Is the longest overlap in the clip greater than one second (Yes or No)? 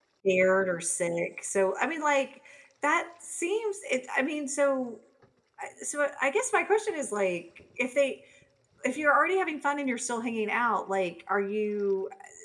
No